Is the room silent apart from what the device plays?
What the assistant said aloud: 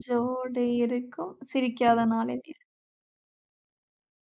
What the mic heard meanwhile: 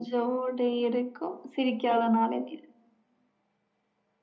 Yes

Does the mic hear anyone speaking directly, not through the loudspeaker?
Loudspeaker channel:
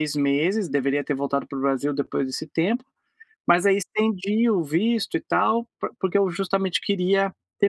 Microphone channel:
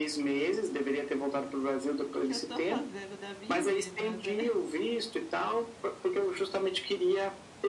Yes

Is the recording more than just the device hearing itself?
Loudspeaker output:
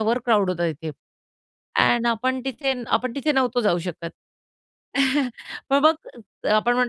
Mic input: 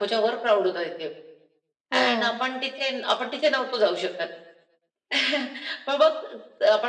Yes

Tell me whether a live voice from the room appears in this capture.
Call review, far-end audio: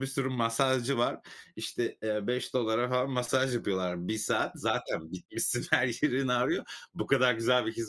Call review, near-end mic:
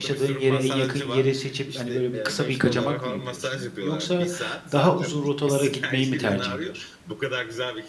Yes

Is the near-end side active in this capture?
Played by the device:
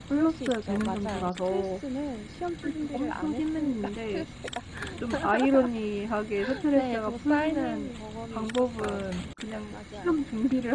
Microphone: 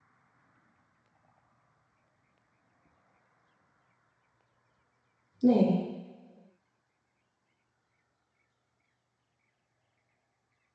Yes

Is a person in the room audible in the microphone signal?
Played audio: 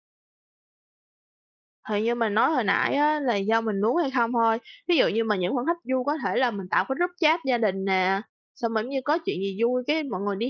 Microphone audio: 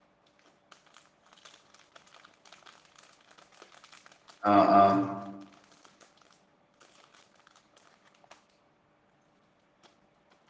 Yes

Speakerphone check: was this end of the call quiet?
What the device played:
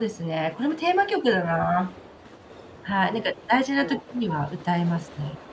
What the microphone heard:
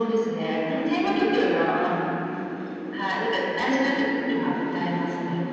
Yes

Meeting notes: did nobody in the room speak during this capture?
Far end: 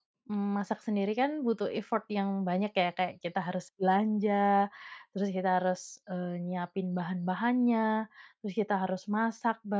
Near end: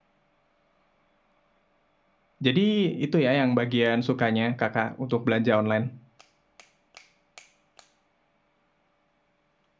No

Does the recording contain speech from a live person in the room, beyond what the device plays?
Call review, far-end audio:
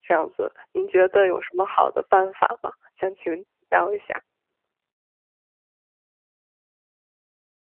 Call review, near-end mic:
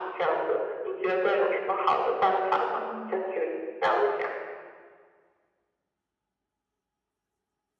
Yes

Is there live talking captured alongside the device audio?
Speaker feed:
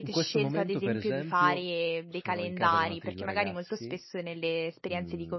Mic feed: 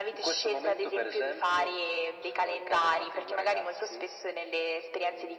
No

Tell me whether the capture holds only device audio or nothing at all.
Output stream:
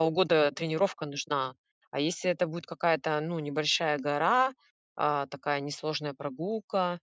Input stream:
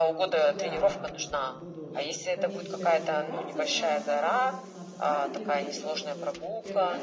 No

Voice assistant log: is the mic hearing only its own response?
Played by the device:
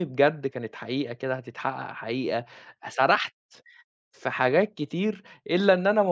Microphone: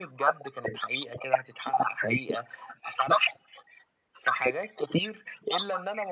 Yes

